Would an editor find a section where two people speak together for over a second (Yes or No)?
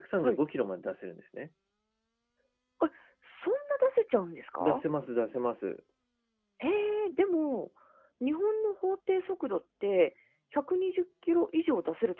No